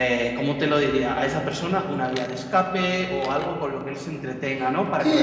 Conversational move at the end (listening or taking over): taking over